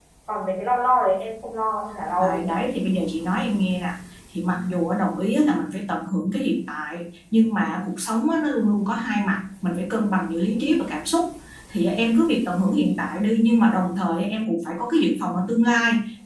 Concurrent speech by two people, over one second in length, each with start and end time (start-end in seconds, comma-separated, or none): none